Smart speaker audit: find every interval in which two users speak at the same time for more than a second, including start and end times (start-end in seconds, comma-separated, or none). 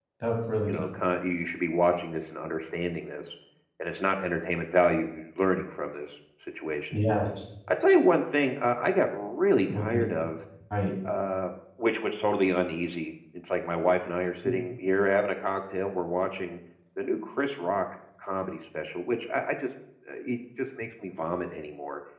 none